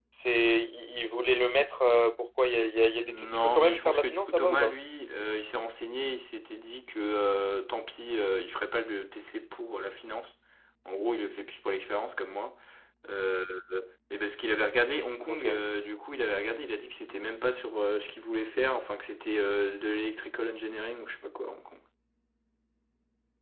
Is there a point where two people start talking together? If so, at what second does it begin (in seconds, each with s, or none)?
3.0 s